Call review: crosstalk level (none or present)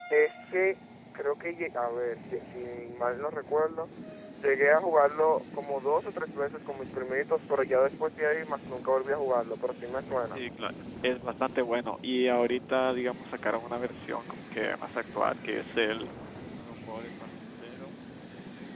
none